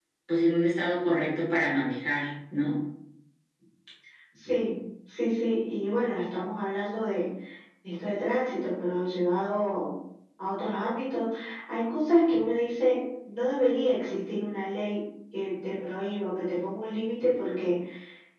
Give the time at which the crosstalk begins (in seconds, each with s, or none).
none